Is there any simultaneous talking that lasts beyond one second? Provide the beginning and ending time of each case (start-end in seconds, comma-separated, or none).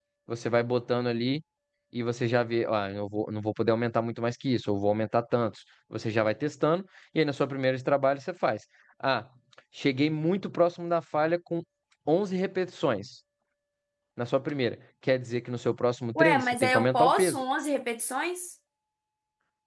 16.2-17.4